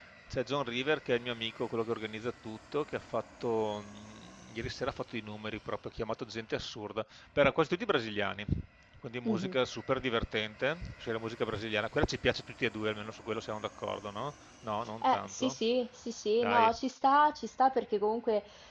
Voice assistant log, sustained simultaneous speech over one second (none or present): none